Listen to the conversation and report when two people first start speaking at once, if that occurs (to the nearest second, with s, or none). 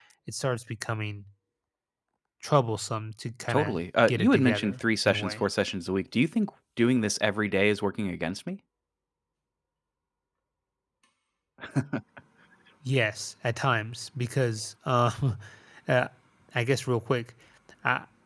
3 s